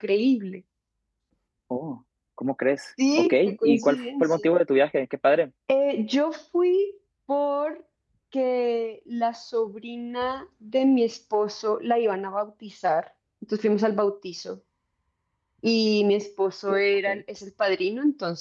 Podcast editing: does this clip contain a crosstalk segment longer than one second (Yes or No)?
Yes